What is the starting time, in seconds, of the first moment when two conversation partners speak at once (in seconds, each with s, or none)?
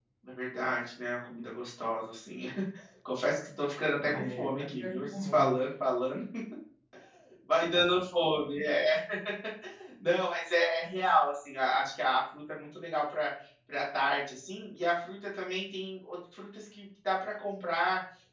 4.0 s